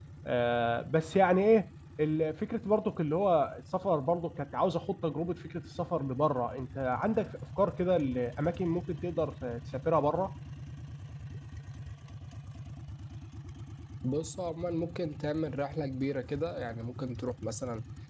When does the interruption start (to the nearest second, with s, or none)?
none